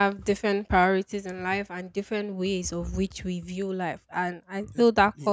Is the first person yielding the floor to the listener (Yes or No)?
No